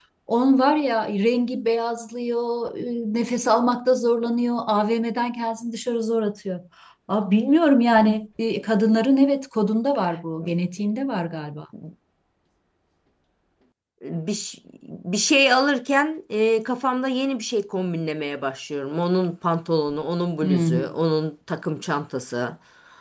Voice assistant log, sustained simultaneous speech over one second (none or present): none